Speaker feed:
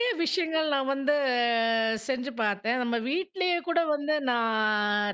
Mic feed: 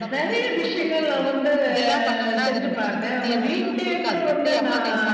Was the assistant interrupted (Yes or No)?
Yes